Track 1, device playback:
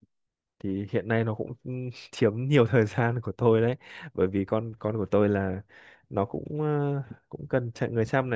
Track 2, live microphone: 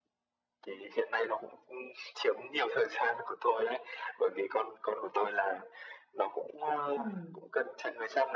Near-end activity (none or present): present